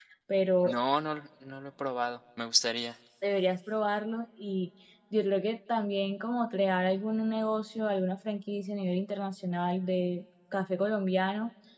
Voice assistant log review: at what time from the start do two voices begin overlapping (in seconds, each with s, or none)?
none